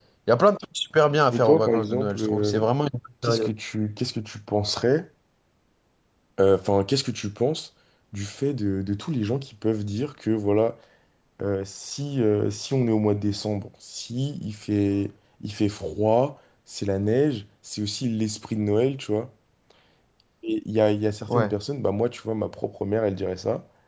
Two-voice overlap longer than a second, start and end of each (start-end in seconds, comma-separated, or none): 1.3-2.5